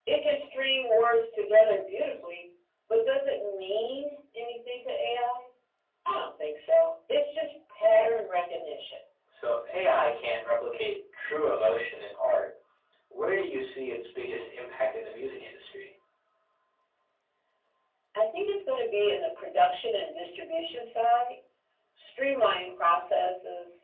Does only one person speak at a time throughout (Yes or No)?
Yes